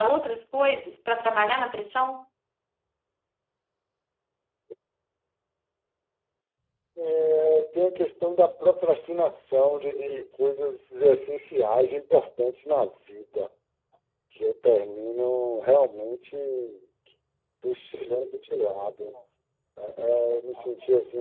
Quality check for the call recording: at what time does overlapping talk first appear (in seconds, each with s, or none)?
none